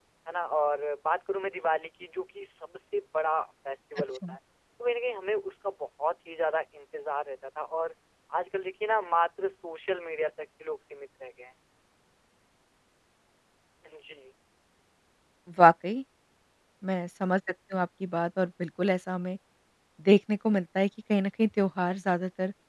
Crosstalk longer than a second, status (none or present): none